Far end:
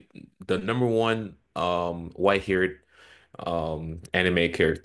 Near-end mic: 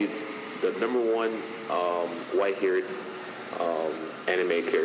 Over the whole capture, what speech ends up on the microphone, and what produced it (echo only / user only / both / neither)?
echo only